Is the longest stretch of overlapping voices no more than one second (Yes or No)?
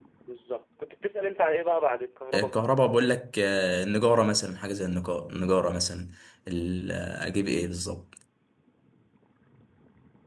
Yes